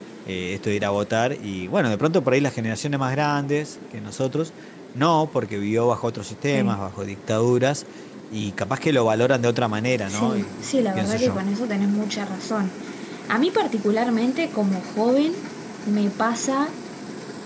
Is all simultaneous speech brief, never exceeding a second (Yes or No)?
No